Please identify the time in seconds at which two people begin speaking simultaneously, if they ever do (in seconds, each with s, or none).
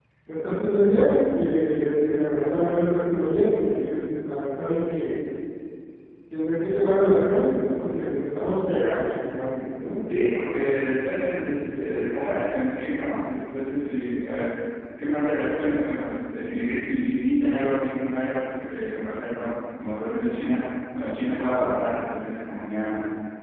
none